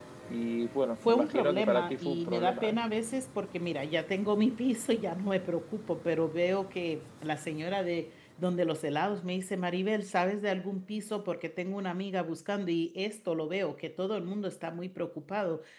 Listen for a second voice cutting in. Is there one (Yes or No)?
Yes